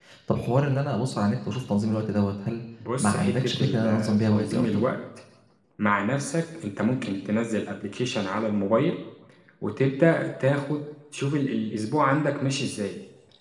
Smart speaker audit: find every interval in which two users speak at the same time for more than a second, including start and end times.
3.0-4.9

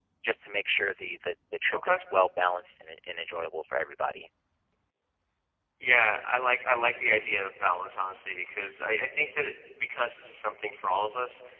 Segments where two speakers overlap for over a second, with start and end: none

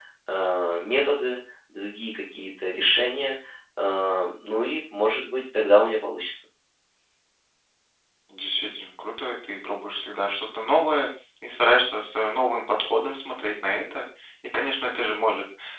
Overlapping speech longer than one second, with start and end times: none

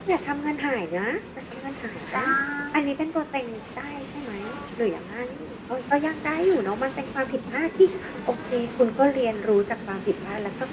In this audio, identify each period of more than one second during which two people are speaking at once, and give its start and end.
none

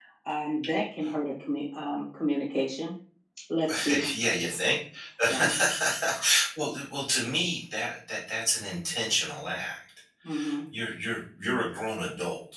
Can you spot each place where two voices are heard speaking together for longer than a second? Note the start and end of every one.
none

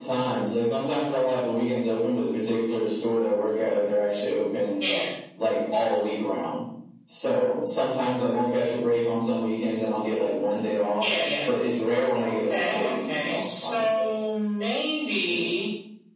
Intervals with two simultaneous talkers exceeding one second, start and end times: 12.2-13.8

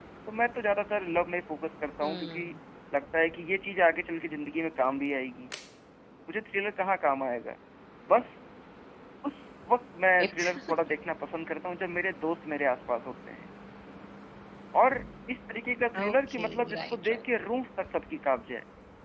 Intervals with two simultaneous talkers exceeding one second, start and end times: 16.0-17.2

